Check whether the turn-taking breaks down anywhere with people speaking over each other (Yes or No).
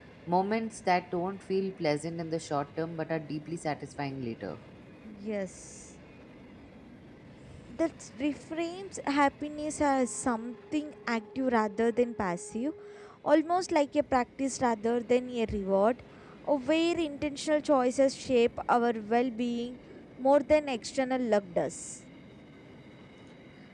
No